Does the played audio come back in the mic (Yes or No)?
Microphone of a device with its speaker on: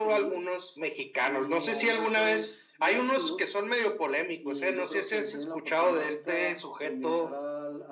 Yes